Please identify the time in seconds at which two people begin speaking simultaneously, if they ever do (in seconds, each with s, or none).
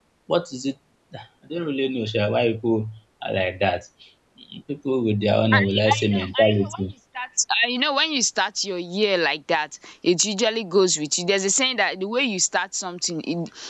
5.5 s